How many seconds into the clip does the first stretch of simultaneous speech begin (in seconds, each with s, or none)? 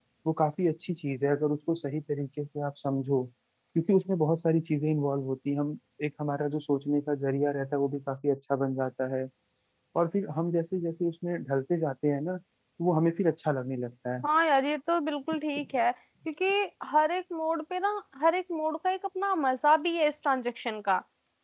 none